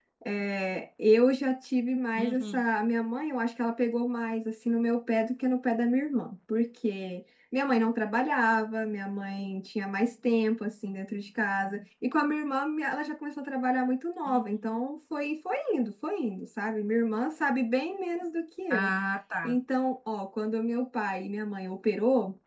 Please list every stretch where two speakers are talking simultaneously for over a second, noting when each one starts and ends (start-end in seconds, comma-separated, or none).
none